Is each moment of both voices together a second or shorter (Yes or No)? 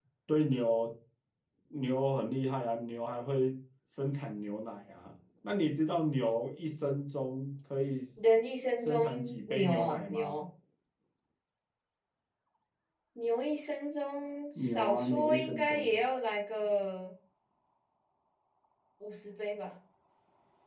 No